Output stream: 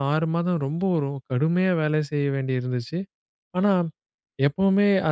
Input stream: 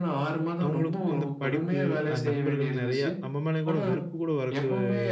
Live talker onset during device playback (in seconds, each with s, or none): 0.6 s